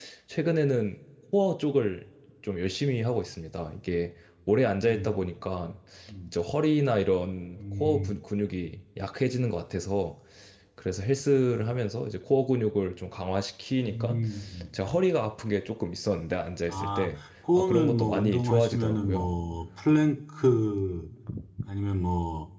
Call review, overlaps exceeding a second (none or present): present